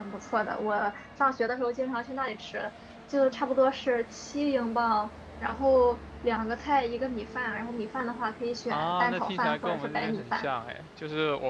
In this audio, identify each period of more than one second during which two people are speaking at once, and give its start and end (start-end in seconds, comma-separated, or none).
8.7-10.5